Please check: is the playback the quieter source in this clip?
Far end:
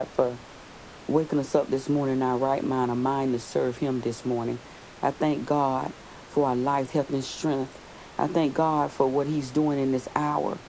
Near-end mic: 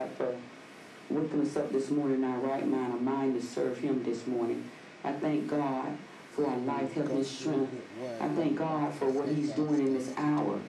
No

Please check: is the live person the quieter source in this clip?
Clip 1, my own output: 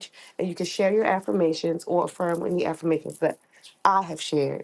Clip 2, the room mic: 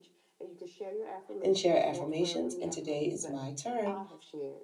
No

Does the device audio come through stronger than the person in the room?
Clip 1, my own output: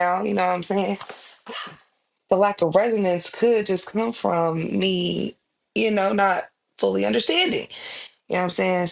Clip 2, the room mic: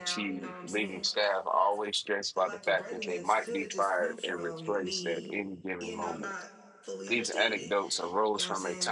No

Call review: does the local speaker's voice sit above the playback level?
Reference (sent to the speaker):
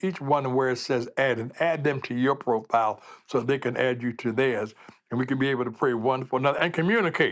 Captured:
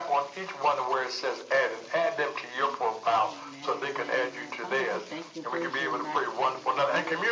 No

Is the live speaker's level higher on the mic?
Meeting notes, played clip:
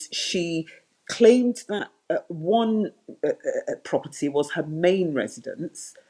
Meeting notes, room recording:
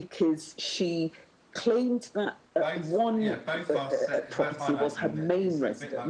No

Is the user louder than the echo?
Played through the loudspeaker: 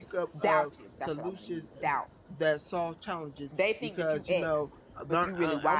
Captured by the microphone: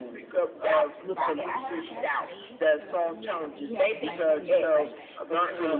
No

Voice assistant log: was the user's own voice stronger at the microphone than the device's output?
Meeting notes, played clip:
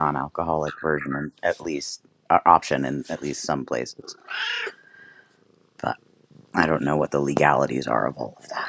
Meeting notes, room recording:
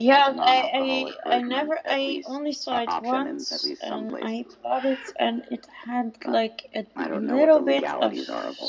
Yes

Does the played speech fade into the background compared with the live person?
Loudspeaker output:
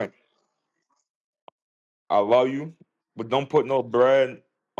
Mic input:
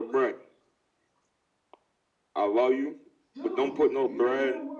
No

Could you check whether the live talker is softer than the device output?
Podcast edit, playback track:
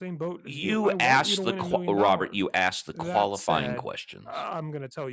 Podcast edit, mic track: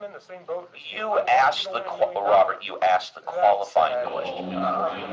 Yes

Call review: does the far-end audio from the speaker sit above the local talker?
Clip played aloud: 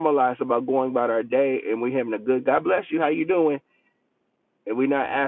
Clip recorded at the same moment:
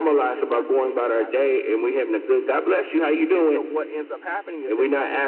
Yes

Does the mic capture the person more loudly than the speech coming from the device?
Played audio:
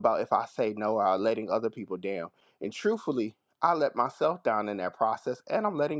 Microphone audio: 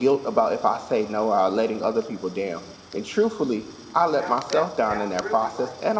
No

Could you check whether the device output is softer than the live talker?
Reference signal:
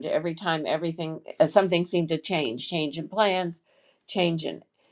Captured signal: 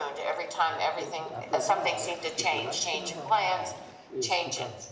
No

